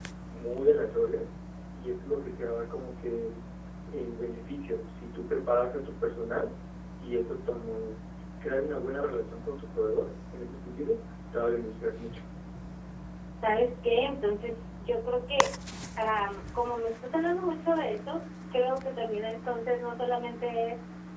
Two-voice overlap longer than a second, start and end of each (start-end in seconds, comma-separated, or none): none